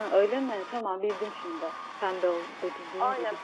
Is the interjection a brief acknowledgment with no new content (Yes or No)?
No